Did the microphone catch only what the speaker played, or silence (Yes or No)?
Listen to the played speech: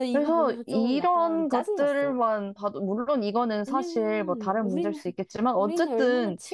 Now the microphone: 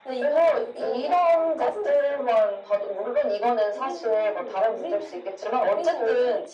Yes